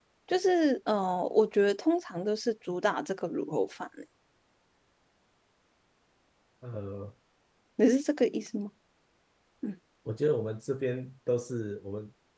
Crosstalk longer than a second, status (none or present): none